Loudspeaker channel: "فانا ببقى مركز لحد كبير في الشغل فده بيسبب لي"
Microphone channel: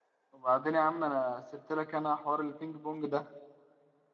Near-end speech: present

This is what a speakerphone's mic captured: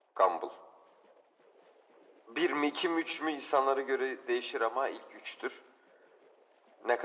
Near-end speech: none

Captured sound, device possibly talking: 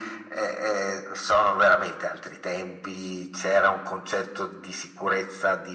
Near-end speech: none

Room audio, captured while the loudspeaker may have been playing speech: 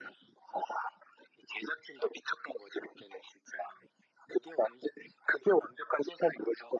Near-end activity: none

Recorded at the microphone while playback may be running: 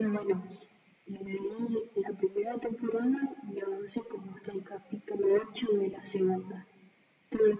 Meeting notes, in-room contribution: none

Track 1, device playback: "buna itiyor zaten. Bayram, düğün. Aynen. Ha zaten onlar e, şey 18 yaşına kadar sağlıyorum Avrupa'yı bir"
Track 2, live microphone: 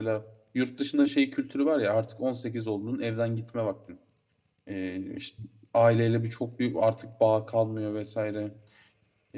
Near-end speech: present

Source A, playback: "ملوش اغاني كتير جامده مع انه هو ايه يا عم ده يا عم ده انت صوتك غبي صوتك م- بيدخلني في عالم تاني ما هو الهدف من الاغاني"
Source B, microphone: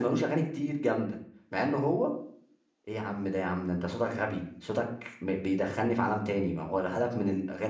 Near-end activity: none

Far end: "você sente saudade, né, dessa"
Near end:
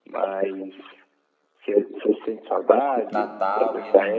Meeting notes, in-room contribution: present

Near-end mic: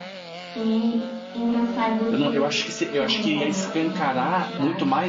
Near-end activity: present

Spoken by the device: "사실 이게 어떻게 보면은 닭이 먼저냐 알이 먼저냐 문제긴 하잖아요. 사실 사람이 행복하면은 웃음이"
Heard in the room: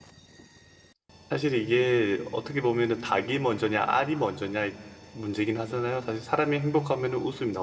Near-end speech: none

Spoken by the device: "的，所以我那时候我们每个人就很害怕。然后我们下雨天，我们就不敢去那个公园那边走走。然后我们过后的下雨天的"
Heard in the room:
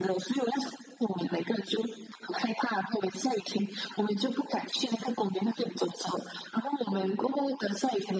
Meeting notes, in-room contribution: none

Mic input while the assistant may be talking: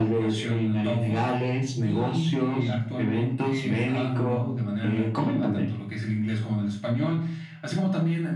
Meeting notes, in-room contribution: none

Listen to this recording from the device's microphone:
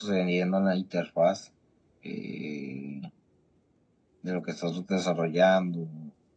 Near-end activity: none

